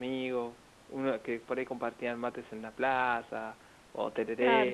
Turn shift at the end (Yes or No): Yes